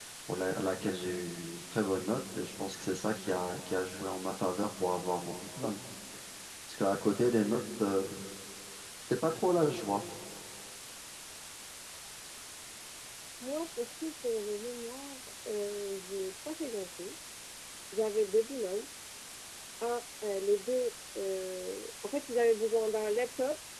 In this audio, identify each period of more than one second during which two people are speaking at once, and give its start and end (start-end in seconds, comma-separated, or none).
none